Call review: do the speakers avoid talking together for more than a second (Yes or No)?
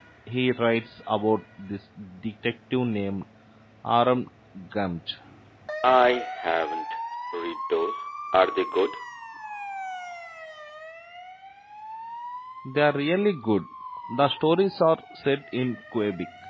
Yes